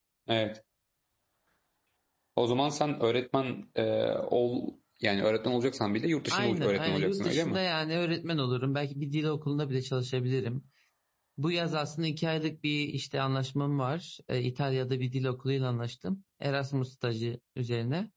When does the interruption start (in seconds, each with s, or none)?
6.3 s